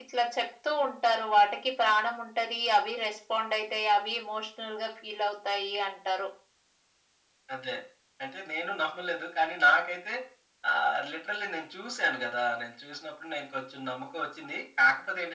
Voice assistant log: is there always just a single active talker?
Yes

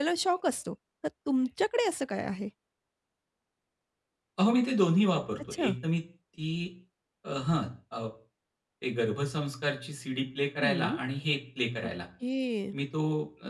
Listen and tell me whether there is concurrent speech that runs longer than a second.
No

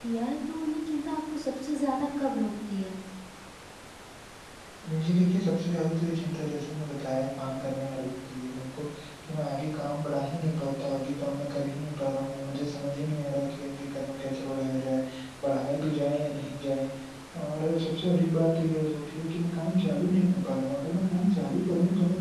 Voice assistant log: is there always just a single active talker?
Yes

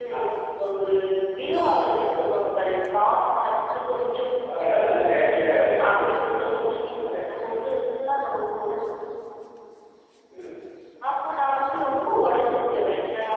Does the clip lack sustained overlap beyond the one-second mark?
No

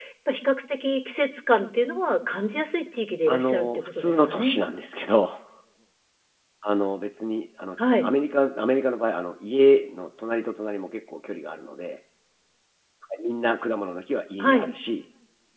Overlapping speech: Yes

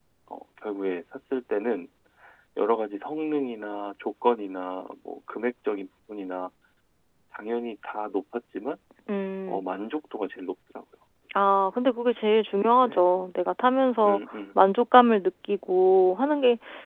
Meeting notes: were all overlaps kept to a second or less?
Yes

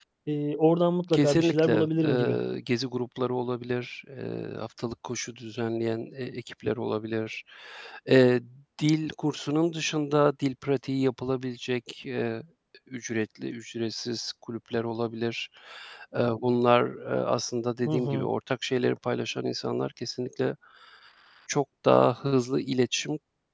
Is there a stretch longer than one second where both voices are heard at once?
Yes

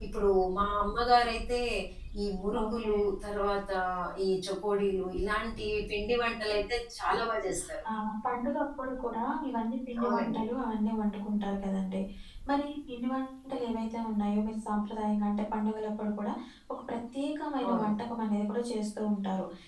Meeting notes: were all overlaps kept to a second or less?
Yes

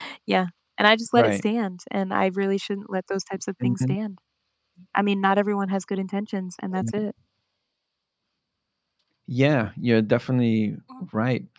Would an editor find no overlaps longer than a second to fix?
Yes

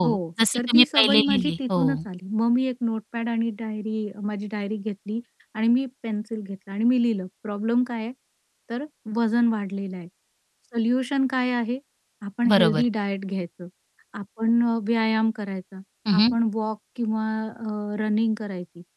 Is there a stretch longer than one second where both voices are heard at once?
Yes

